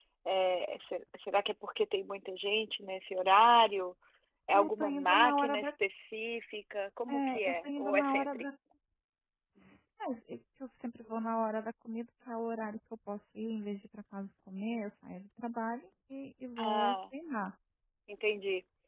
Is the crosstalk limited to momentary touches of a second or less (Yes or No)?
No